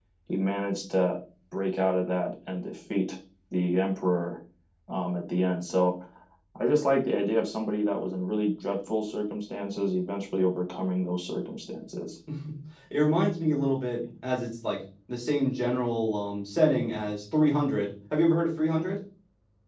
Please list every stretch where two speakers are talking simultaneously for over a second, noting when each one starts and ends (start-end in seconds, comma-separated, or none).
none